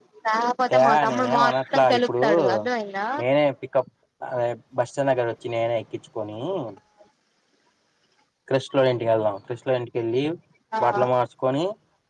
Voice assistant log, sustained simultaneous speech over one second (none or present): present